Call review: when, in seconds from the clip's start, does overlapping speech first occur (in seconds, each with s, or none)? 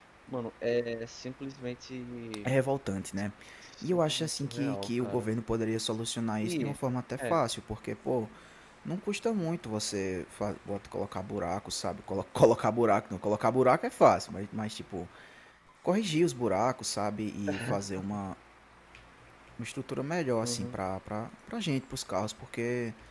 3.9 s